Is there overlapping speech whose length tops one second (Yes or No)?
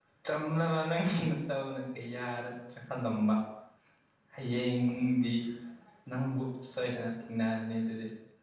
No